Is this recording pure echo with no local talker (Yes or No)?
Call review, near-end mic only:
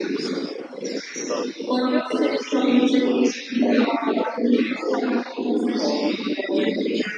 Yes